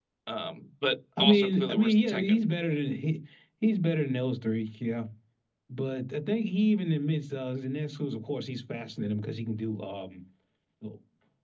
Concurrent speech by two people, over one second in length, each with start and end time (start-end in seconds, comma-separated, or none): 1.2-2.4